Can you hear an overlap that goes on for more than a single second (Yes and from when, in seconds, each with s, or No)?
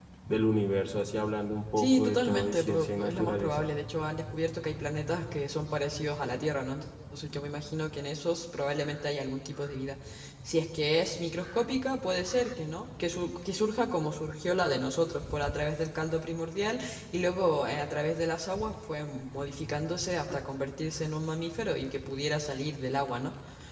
Yes, from 1.8 s